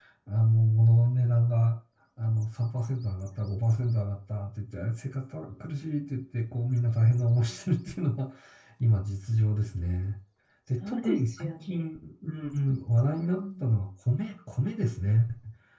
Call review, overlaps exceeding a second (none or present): present